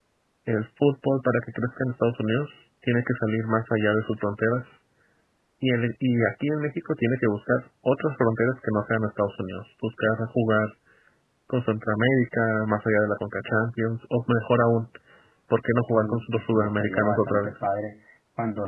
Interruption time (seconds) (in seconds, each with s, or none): 16.0 s